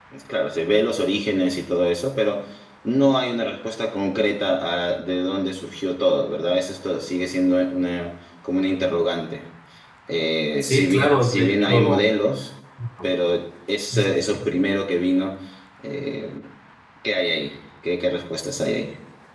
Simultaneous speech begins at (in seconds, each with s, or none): 10.6 s